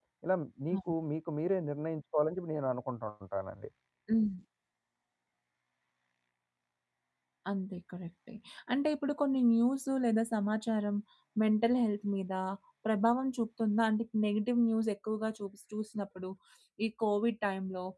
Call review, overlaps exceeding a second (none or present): none